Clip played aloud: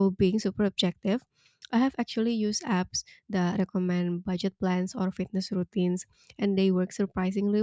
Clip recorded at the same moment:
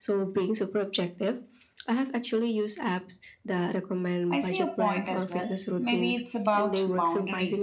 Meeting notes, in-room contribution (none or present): present